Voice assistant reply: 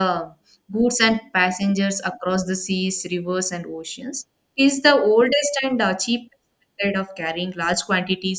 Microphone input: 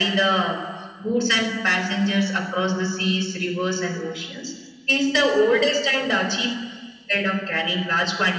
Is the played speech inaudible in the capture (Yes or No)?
No